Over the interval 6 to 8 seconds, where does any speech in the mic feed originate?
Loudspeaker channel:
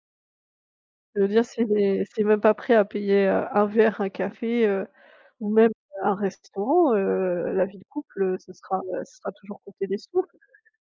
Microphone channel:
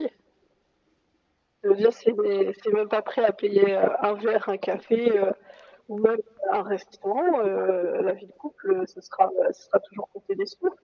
echo only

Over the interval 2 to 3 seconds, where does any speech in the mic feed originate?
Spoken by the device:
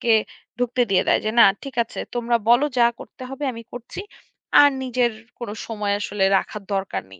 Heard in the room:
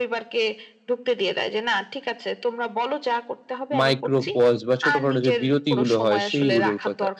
echo only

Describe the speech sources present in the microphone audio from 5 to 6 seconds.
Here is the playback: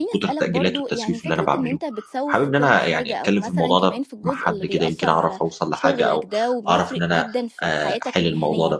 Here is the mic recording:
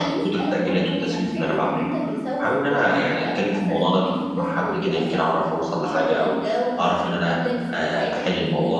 echo only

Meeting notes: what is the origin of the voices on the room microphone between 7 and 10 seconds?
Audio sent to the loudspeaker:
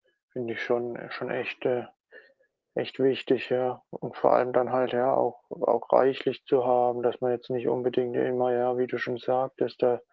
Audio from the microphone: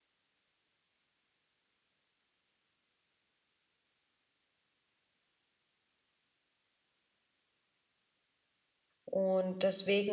user only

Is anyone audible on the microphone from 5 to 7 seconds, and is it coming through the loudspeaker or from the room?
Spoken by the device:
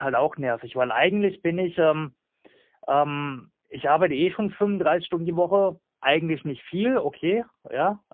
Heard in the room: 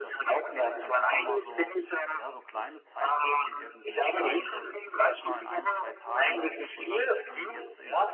both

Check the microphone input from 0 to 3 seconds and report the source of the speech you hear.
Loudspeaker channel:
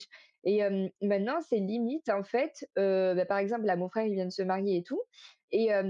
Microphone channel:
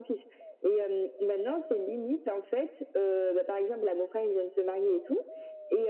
echo only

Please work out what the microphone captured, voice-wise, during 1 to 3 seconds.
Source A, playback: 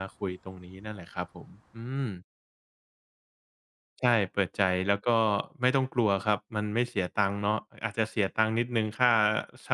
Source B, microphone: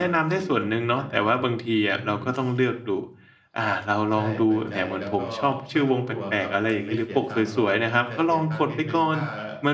both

